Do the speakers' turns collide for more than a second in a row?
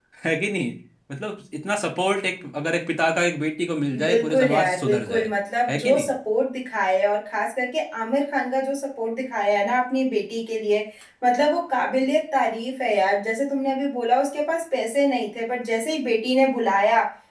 Yes, from 3.9 s

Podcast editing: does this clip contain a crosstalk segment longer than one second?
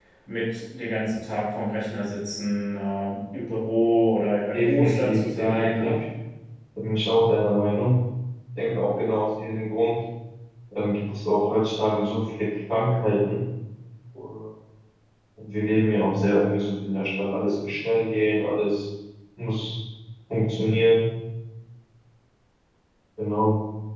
Yes, from 4.5 s

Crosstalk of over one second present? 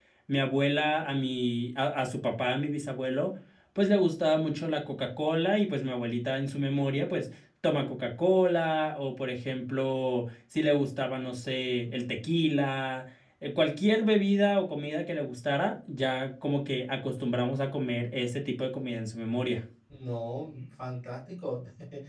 No

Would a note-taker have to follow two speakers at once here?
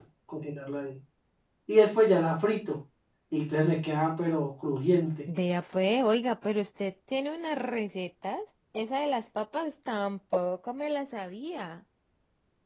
No

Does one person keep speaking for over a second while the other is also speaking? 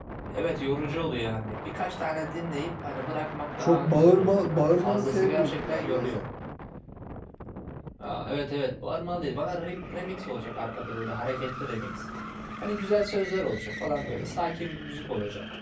Yes, from 3.5 s

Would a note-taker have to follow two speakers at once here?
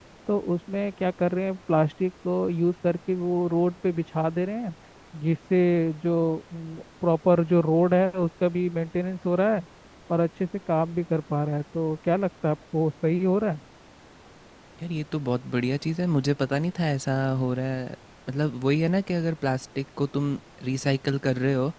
No

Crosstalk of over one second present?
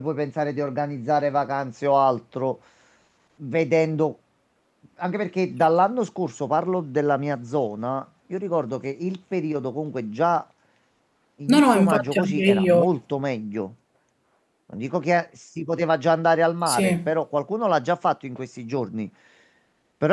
Yes, from 11.5 s

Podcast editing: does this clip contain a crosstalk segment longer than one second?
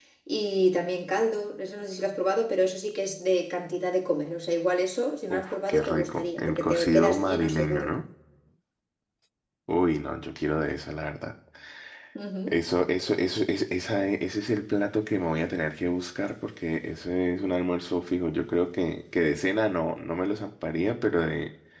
Yes, from 5.3 s

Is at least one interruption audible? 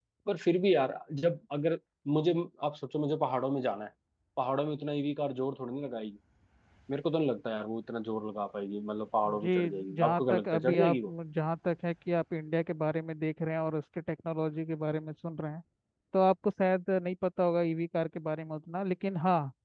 Yes, from 9.2 s

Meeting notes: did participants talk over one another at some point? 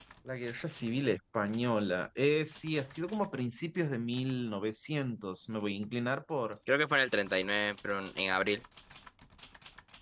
No

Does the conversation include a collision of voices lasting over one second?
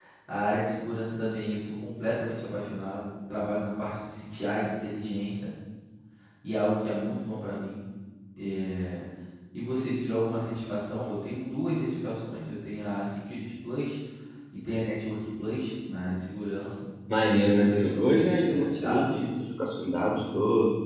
Yes, from 17.5 s

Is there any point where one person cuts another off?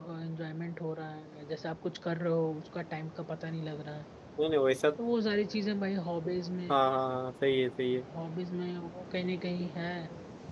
No

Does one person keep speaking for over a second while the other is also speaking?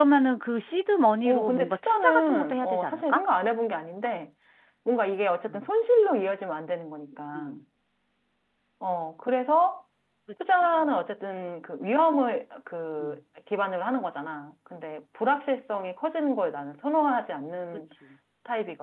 Yes, from 1.2 s

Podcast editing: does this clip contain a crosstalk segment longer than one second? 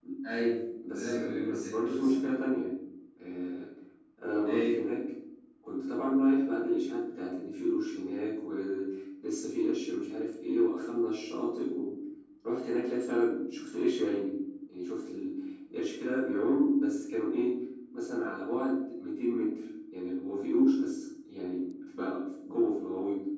Yes, from 0.9 s

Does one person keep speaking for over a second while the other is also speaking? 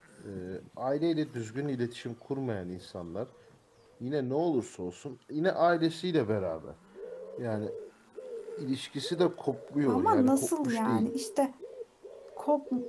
Yes, from 9.9 s

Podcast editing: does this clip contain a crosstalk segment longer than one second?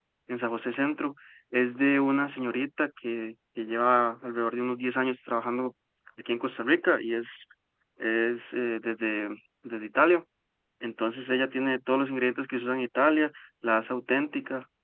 No

